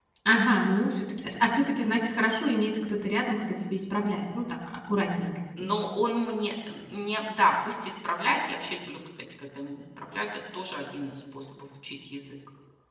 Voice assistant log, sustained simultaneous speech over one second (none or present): none